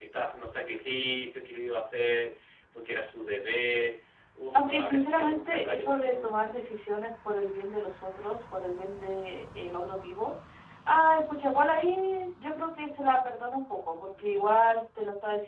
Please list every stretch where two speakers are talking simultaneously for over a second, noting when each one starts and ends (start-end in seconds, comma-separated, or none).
4.5-6.8